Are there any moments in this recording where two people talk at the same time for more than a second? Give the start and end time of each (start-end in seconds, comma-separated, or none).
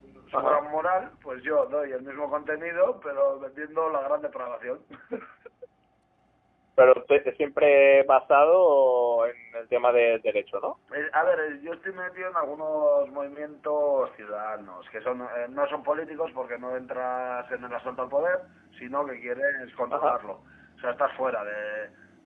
none